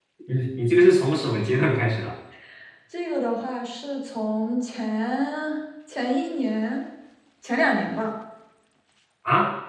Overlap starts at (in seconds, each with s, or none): none